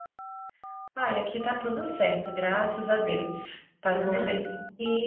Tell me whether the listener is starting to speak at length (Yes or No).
No